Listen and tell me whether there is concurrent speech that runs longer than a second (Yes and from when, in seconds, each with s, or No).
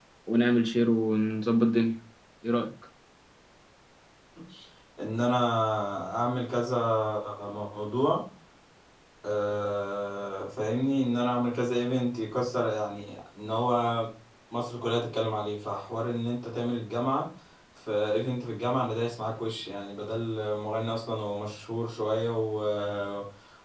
No